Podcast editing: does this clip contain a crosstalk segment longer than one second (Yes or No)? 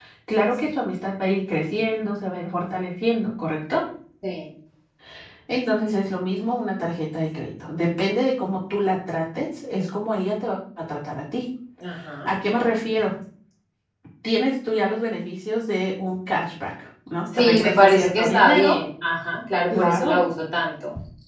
Yes